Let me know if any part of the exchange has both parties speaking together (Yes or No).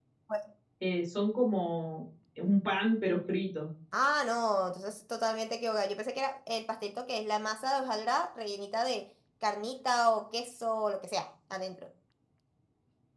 No